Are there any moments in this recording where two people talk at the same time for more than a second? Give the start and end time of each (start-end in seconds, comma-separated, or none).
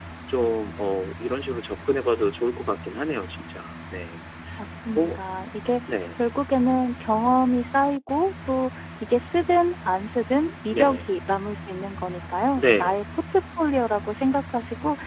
none